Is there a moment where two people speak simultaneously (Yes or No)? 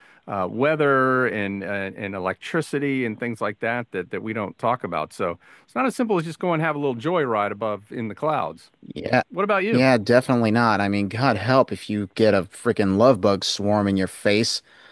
No